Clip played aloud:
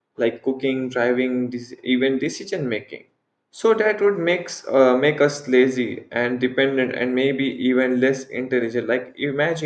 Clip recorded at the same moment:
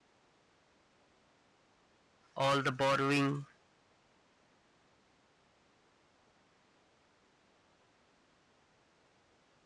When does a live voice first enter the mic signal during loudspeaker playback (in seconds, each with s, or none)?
2.3 s